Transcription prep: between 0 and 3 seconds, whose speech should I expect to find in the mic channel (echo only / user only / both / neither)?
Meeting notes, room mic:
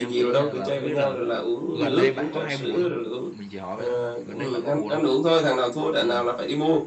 both